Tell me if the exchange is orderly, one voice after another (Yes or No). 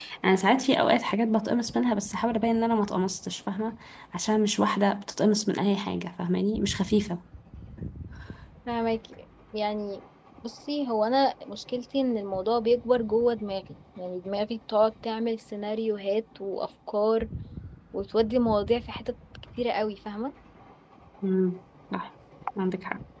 Yes